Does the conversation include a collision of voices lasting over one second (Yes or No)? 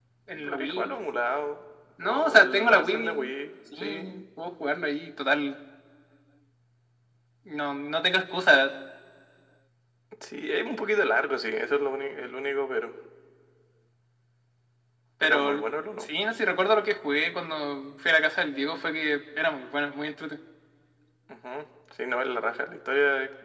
Yes